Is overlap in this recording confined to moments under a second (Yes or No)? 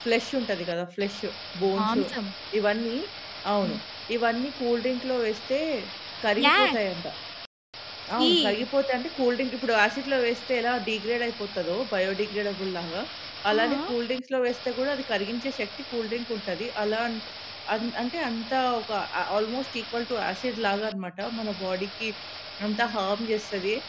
Yes